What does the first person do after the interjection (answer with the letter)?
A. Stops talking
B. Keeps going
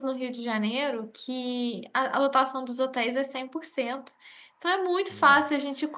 B